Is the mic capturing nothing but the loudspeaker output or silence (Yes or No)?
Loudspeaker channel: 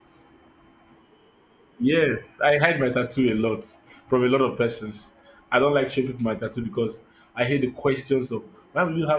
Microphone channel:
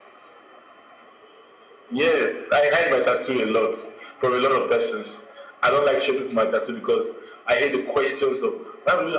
Yes